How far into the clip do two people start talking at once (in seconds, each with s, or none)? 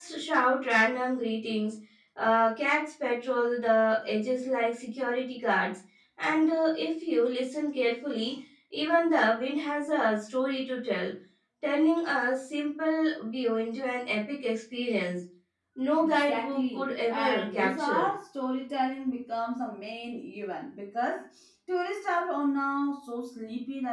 16.0 s